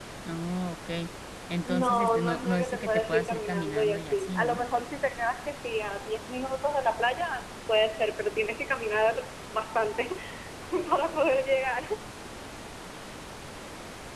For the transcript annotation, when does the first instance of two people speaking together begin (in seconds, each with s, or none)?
1.6 s